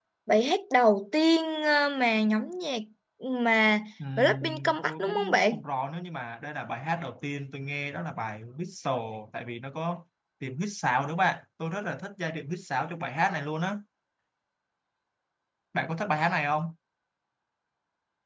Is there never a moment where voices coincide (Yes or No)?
No